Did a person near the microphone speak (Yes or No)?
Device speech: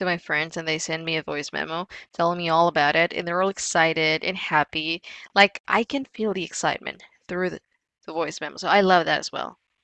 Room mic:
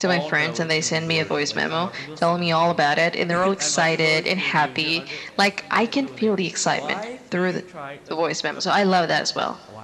Yes